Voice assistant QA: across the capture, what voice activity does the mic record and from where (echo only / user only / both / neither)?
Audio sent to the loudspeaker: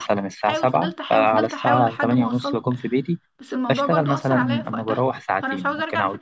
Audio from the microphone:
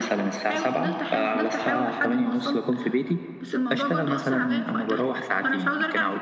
echo only